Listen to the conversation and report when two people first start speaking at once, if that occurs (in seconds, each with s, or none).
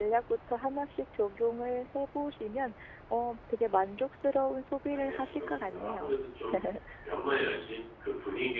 4.9 s